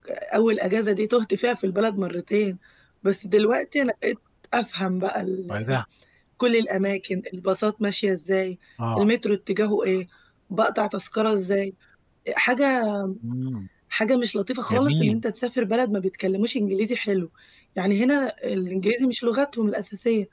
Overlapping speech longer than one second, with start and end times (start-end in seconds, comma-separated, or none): none